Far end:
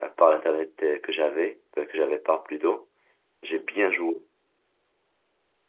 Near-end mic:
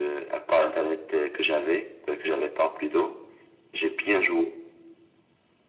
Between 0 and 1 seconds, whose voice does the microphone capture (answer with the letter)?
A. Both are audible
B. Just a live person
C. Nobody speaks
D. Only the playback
D